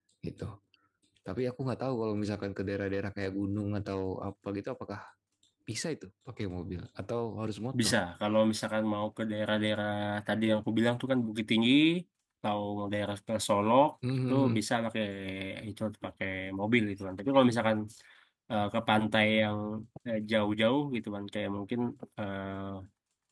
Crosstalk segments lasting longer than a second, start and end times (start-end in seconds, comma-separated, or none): none